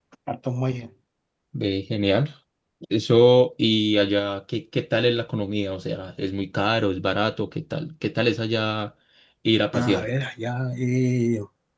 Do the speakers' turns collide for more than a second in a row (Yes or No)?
No